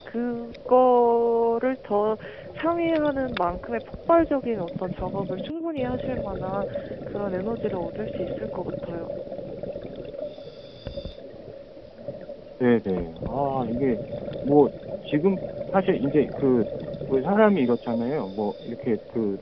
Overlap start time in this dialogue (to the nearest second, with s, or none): none